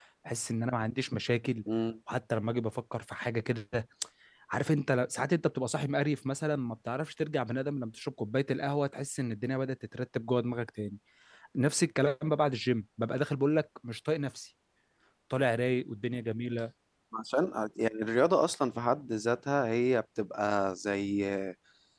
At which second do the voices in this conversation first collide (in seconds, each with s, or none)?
none